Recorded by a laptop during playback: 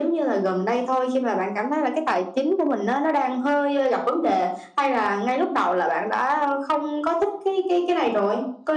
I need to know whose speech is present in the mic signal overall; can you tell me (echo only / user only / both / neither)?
echo only